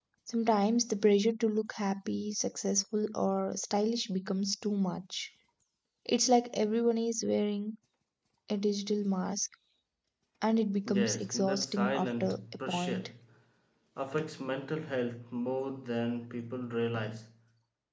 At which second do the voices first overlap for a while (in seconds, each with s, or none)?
10.9 s